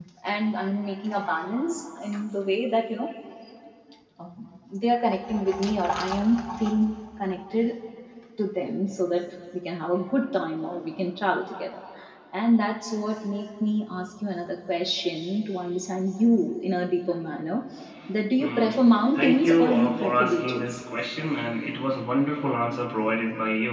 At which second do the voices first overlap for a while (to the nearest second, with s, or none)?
18 s